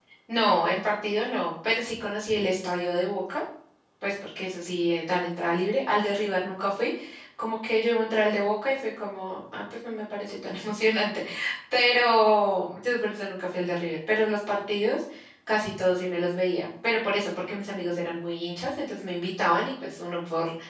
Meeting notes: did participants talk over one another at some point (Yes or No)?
No